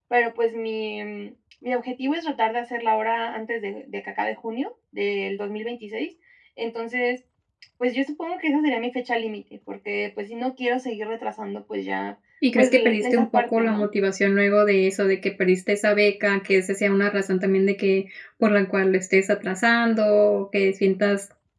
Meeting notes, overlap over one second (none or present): present